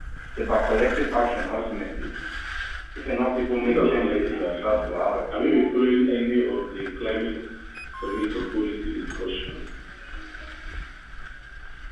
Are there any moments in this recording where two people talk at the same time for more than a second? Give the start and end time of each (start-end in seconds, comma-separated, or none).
3.6-4.8